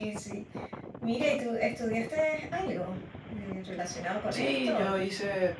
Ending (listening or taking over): taking over